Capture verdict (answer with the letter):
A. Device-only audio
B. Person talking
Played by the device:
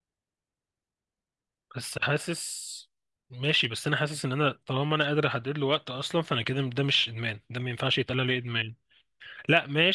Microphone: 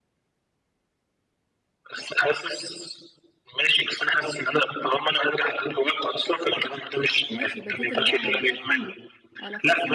B